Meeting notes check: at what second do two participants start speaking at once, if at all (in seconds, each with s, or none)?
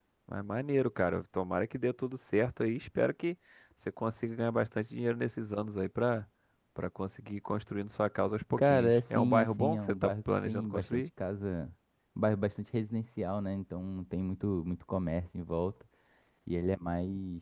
8.6 s